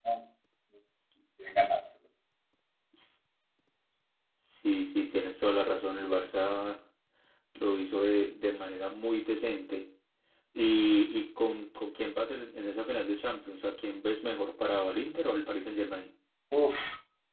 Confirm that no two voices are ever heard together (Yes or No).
Yes